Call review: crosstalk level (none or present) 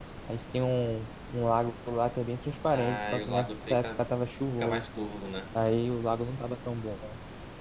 present